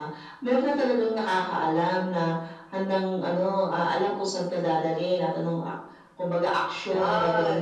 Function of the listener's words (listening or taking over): listening